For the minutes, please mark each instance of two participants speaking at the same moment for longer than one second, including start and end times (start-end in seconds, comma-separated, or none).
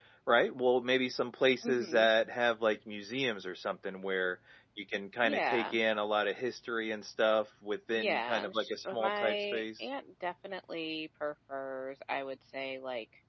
8.0-9.8